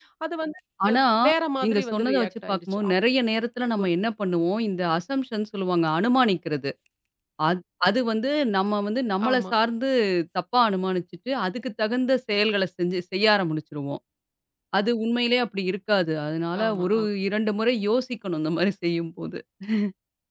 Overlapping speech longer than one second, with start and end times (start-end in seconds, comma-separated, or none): 1.6-2.9